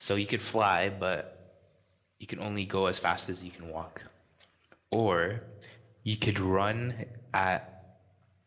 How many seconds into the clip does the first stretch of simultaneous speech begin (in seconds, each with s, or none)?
none